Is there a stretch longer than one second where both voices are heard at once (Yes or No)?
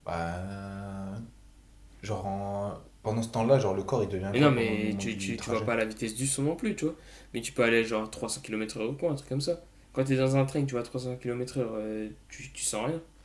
Yes